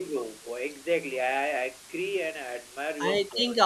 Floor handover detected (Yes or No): Yes